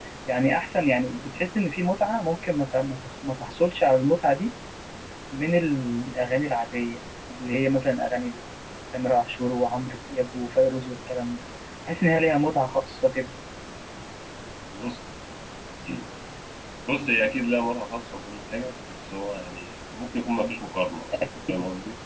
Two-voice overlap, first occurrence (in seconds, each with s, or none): none